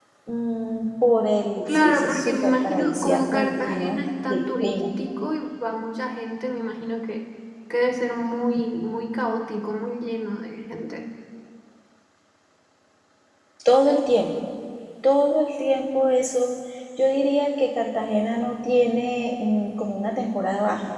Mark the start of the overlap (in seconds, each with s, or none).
1.7 s